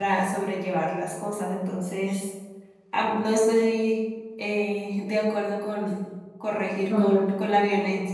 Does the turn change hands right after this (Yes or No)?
Yes